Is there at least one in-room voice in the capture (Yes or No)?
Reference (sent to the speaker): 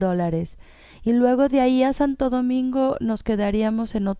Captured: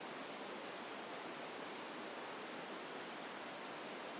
No